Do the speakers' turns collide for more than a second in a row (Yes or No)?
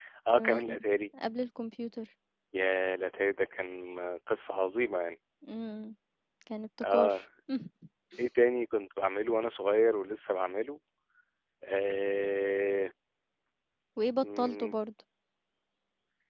No